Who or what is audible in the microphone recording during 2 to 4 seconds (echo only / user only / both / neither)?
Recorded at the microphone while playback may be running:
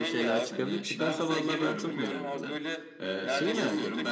both